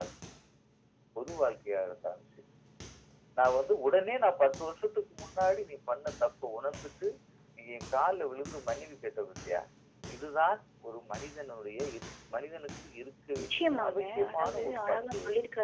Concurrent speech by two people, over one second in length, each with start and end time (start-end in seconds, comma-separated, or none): 13.4-15.2